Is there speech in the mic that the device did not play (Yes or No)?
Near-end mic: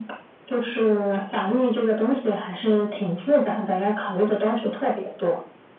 No